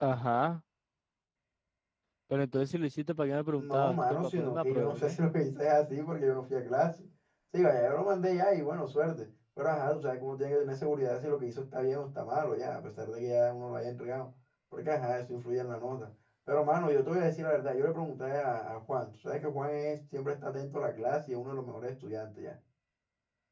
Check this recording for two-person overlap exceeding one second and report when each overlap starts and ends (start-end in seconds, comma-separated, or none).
3.6-5.2